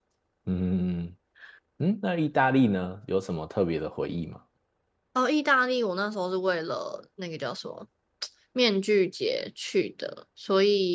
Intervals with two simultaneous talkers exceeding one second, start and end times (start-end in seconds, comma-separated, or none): none